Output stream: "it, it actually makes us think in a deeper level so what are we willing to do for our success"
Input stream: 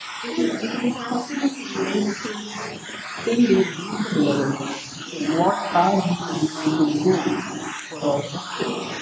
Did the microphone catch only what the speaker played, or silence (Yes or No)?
Yes